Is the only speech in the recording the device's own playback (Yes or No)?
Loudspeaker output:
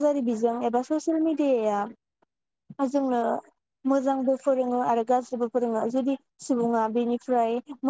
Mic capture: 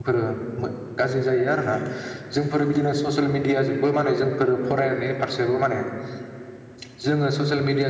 No